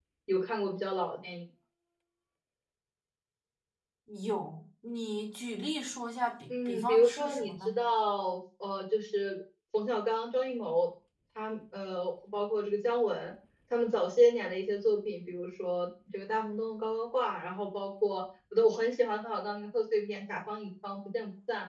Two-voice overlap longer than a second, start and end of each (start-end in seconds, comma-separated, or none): 6.5-7.8